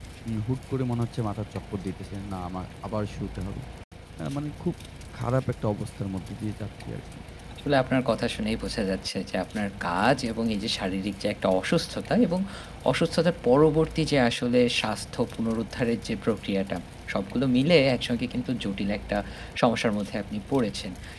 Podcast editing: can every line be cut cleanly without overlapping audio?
Yes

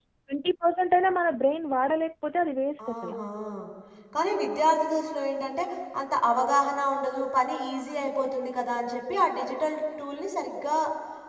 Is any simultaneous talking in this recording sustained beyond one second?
No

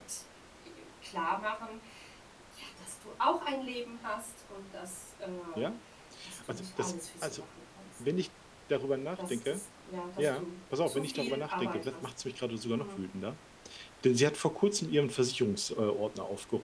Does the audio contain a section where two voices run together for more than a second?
Yes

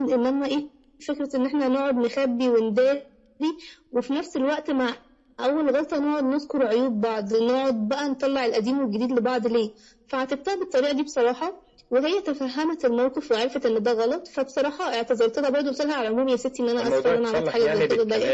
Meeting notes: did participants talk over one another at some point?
Yes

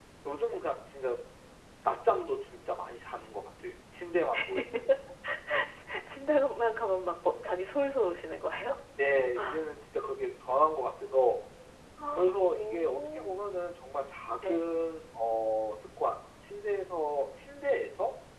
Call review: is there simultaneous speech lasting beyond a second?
Yes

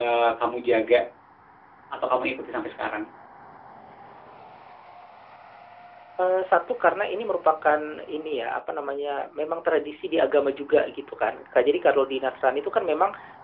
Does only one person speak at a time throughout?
Yes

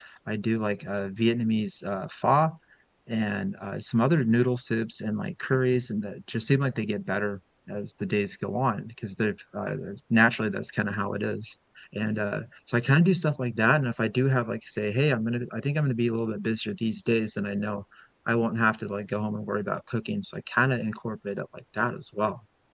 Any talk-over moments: No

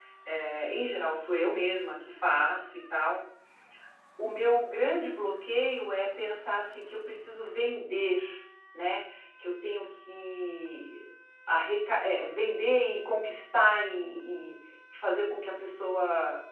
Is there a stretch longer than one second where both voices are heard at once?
No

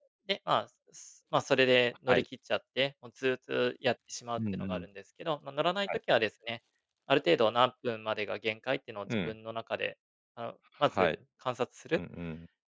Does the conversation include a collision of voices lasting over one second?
No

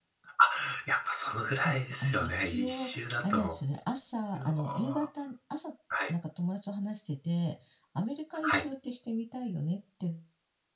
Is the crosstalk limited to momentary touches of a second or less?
No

